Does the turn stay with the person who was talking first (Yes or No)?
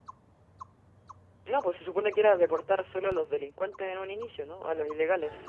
No